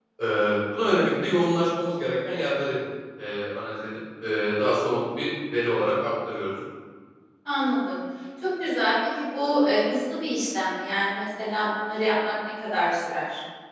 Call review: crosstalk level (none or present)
none